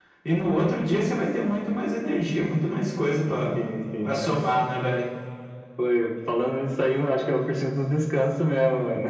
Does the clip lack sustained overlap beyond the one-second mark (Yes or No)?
Yes